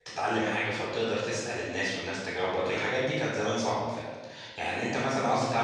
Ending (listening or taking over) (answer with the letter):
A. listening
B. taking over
A